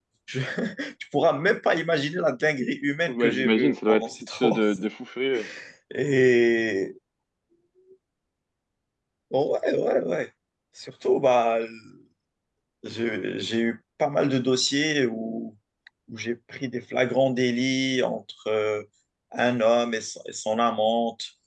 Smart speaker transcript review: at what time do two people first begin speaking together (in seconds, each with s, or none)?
3.1 s